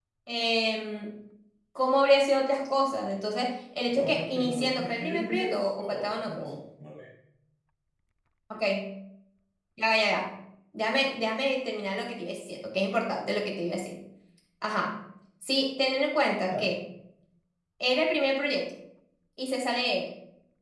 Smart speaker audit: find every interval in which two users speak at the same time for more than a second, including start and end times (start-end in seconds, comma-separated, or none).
3.9-6.5